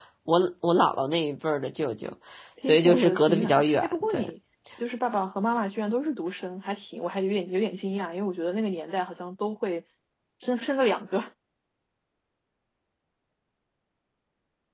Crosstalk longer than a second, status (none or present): present